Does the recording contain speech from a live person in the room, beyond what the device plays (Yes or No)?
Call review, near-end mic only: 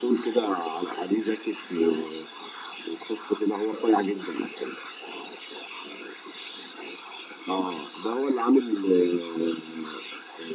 No